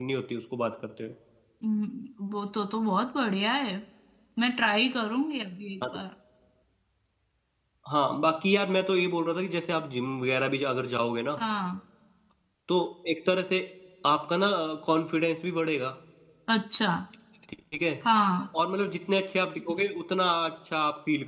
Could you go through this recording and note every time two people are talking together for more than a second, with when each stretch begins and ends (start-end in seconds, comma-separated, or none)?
none